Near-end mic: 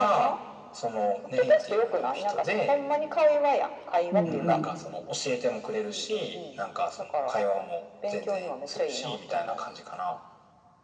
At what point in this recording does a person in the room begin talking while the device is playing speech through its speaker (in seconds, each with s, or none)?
4.1 s